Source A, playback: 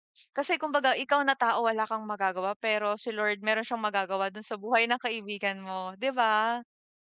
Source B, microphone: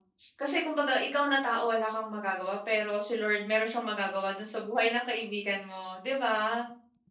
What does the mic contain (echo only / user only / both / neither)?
echo only